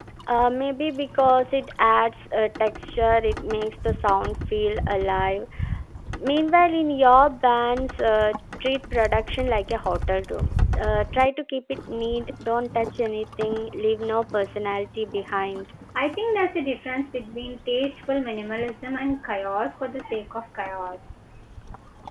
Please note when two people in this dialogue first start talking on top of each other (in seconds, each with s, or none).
none